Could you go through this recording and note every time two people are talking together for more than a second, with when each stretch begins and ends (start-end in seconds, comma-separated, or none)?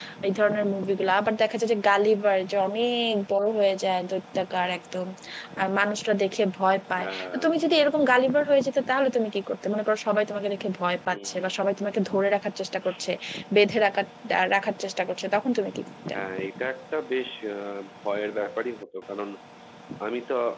none